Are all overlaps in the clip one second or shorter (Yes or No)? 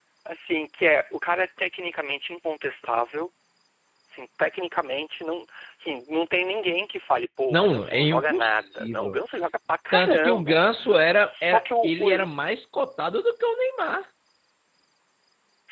No